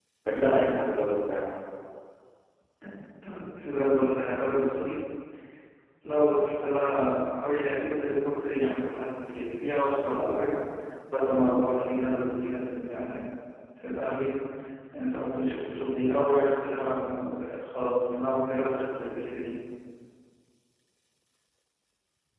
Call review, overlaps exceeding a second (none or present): none